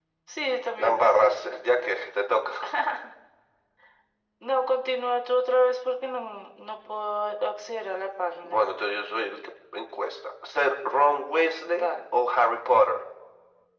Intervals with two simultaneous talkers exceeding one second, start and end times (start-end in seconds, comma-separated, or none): 0.8-2.0